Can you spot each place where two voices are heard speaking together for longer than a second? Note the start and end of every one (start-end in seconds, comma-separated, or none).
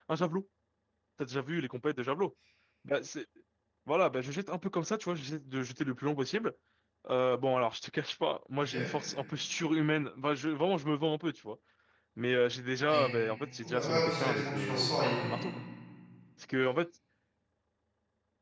13.6-15.5